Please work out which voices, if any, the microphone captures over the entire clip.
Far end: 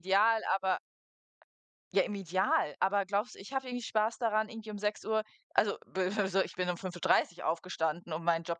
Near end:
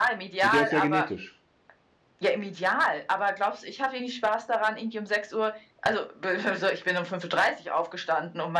both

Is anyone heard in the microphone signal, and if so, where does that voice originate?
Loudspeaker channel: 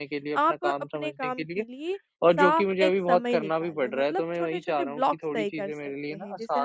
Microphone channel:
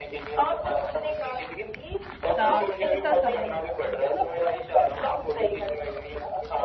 both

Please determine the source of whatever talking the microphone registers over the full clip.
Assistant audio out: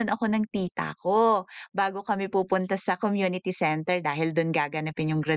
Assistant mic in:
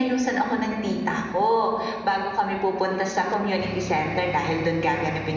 echo only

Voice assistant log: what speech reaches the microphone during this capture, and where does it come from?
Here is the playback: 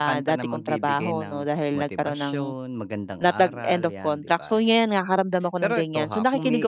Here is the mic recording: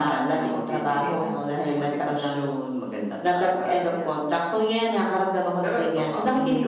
echo only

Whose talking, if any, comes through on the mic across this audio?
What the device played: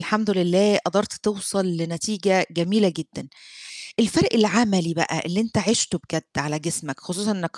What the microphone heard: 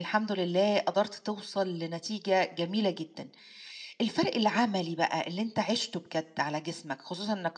echo only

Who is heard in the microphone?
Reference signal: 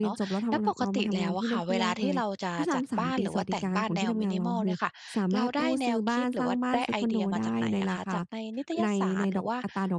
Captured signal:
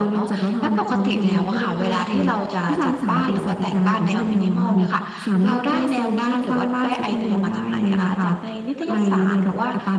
echo only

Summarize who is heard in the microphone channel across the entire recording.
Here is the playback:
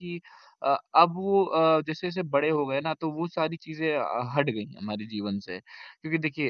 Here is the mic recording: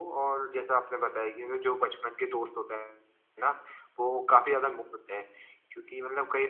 user only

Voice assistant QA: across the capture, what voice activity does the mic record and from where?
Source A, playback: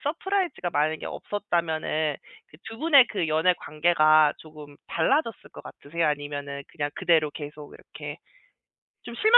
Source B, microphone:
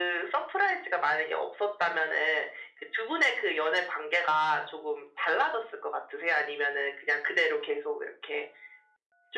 echo only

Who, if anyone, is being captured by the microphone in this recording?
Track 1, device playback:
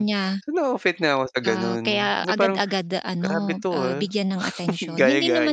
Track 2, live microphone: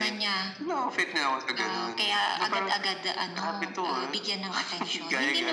echo only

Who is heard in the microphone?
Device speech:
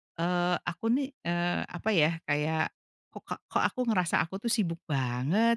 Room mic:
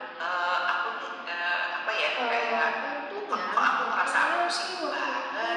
both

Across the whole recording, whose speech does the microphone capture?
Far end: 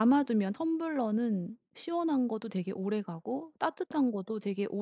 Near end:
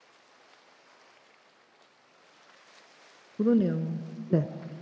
user only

